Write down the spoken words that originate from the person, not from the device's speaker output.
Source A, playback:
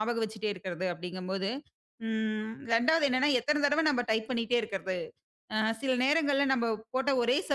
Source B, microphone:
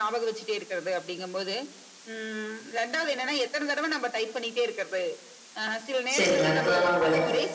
சரிங்க. அற்புதமான வேலை.

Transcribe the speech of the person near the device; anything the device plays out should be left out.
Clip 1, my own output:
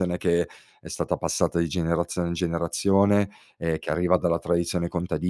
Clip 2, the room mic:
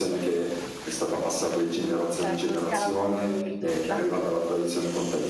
Mh, certo, scala un po' più ridotta.

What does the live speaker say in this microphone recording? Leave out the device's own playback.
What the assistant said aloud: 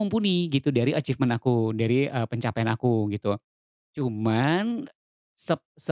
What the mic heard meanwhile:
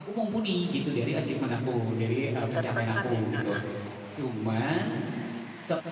tertekan ya Kak?

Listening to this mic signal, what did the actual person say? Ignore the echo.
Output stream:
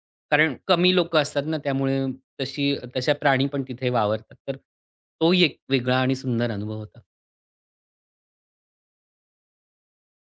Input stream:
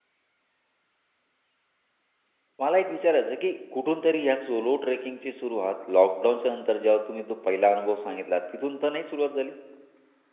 मला एक विचारायचं आहे, की कुठून तरी या सोलो ट्रेकिंगची सुरुवात लॉकडाऊनच्या नंतर जेव्हा तुम्ही तो पहिला अनुभव सांगितला, तिथून तर नाही सुरुवात झाली?

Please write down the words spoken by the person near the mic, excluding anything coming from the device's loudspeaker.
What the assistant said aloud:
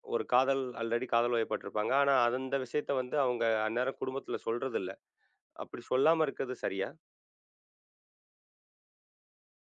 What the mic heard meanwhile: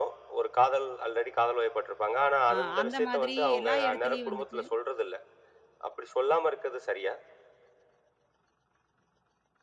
அ அந்த மாதிரி எல்லா இடத்துலயும் வந்துட்டு

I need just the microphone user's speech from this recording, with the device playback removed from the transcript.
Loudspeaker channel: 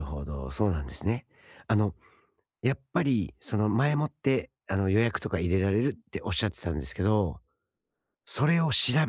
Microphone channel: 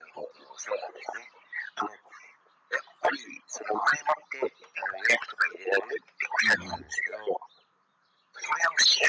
うんうん。

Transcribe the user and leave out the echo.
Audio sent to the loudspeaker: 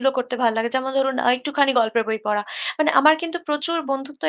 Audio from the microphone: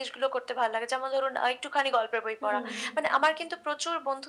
হুম,

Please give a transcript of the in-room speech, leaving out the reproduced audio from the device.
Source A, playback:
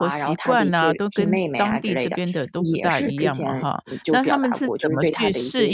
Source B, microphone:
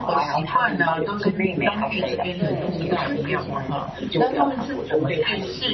对，是

